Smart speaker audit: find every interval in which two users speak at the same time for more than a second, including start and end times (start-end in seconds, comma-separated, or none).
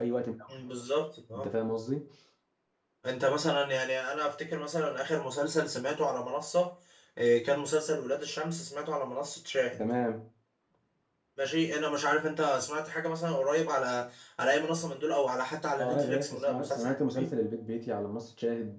15.8-17.4